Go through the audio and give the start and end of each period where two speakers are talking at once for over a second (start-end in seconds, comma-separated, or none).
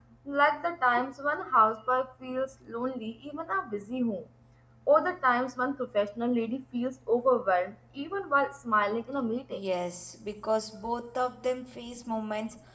none